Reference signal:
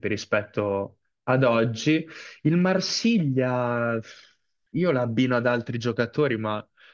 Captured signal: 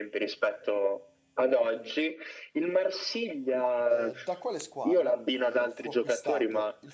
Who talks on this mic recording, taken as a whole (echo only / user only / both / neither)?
both